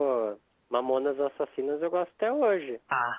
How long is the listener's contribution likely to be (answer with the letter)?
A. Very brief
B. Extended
B